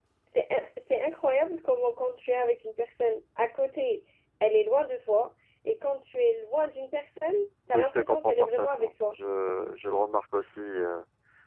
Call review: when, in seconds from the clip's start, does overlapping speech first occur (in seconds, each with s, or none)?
7.7 s